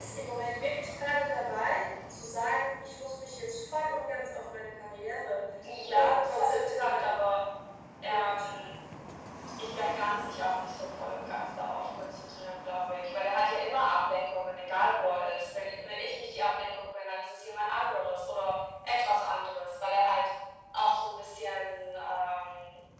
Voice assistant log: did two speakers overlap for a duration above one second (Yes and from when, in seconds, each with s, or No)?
Yes, from 5.9 s